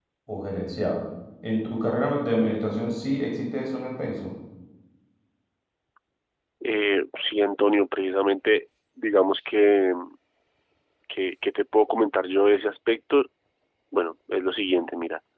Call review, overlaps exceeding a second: none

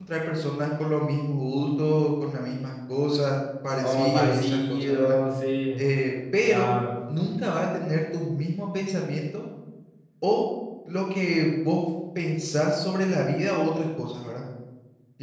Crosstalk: present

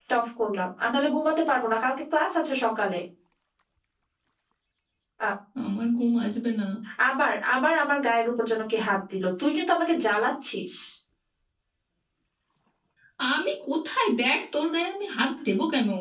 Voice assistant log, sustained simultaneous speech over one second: none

